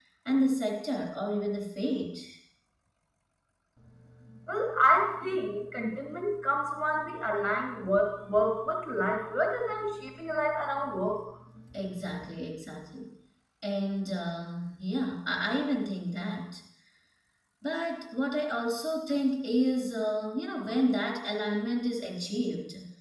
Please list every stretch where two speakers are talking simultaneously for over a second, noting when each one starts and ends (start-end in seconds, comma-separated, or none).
none